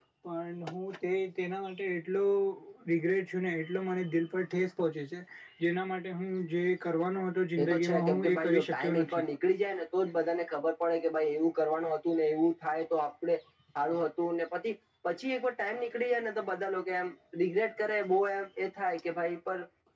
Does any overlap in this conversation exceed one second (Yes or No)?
Yes